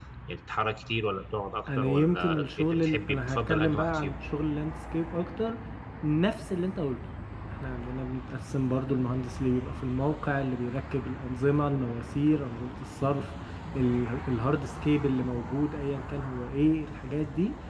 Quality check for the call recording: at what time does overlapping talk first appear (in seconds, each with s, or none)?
1.7 s